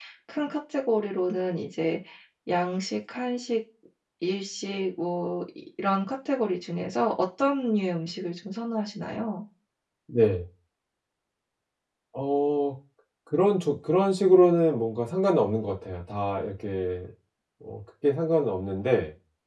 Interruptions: none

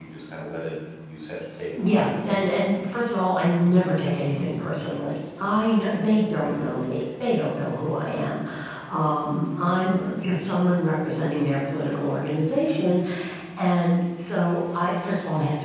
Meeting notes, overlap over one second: none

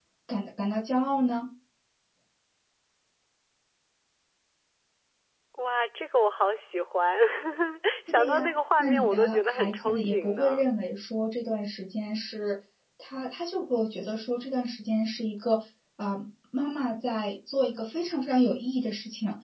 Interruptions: present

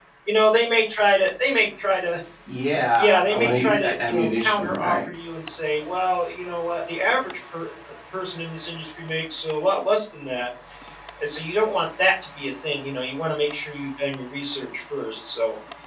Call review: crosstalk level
present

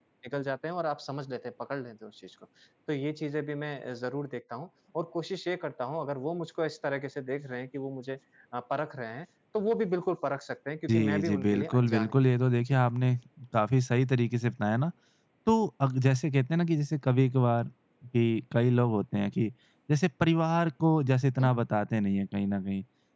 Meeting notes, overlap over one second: present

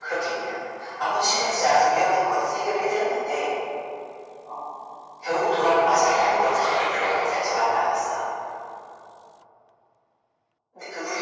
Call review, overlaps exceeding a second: present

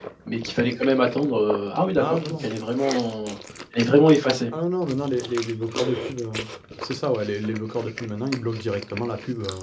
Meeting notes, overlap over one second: none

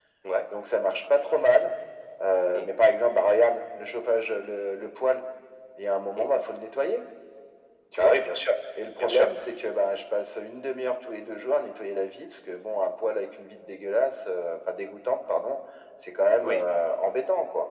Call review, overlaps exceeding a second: none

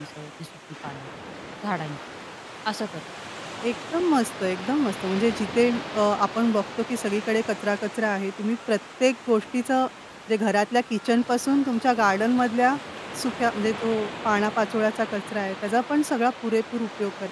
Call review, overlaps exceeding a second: none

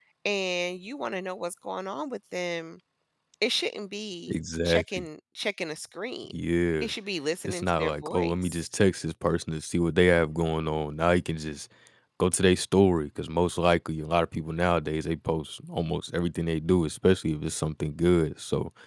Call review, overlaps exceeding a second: present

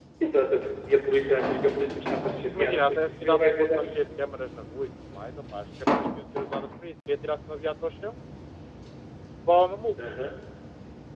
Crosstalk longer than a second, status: present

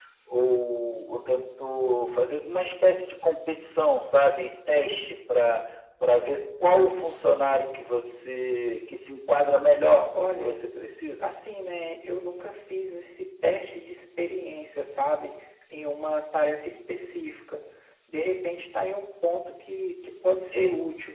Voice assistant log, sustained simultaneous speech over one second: none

